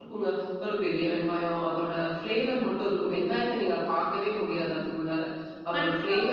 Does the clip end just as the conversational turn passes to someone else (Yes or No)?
Yes